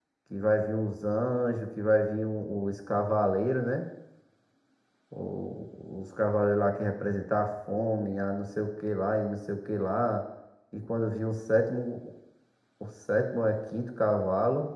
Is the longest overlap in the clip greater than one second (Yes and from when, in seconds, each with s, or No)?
No